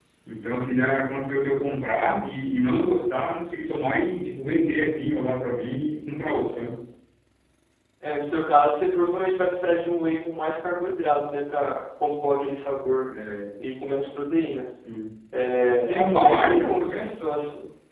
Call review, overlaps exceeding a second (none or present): present